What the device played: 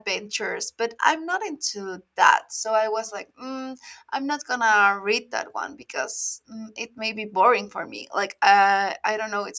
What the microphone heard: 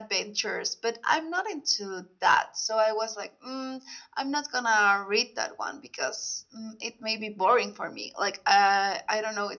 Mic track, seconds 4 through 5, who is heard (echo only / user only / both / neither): echo only